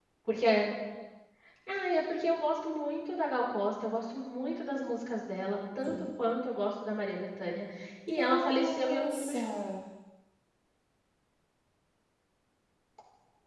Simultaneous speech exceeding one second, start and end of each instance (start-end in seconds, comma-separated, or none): 8.1-9.4